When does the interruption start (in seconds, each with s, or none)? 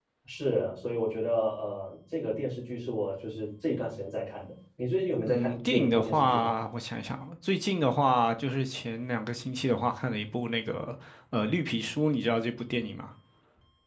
5.3 s